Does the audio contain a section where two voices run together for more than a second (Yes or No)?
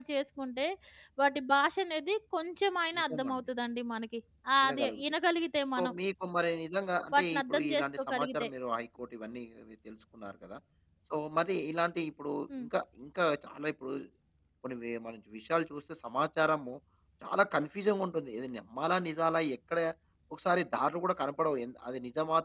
Yes